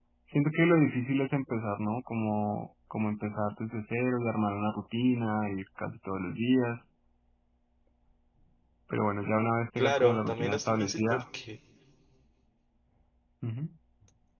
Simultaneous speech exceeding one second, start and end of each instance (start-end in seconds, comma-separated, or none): 9.8-11.2